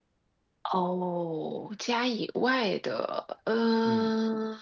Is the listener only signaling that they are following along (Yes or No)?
No